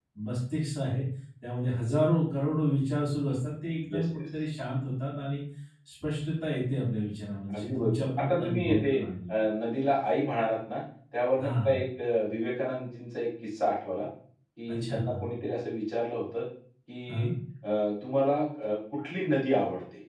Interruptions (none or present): present